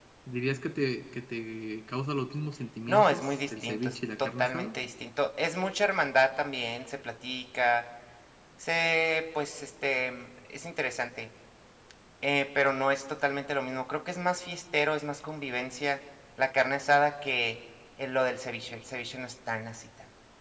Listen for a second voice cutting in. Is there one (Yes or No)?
Yes